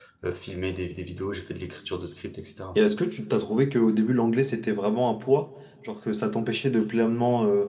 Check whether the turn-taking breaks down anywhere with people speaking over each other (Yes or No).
No